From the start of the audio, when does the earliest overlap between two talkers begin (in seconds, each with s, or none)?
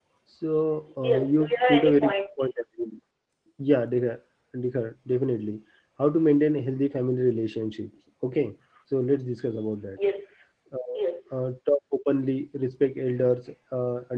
1.0 s